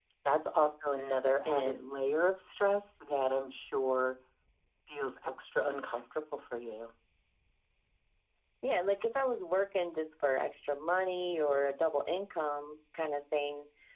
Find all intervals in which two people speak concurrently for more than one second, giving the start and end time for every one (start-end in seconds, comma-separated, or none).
none